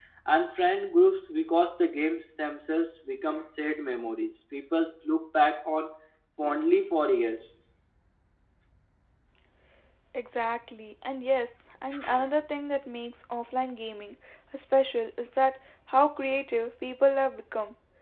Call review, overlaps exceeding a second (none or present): none